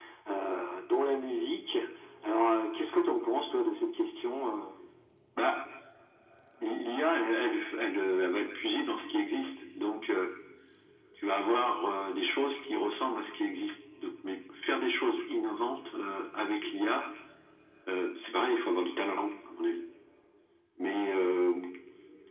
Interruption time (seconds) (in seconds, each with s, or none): none